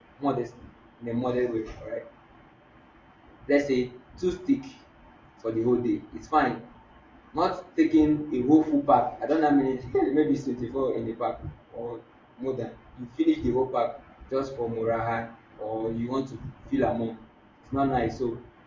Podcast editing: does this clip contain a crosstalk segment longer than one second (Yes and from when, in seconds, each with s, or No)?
No